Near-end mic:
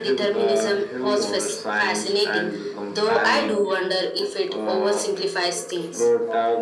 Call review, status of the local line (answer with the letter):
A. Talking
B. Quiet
B